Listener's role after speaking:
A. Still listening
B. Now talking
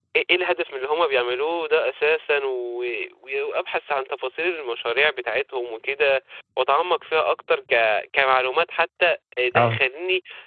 A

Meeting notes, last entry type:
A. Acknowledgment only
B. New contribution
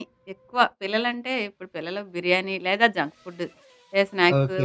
B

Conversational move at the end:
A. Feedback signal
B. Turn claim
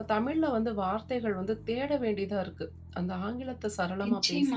B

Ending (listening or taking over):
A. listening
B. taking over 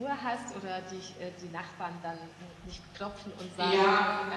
B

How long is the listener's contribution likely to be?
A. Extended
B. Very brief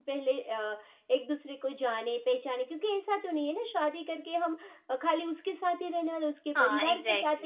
A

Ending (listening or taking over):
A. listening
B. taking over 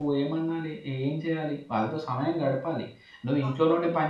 A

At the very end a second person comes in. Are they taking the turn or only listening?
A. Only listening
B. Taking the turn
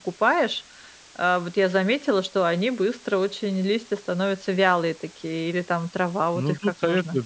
B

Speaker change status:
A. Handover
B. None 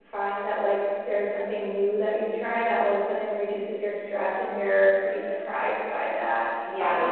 A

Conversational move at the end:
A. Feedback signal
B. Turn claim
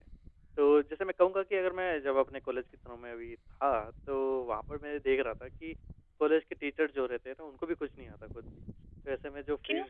A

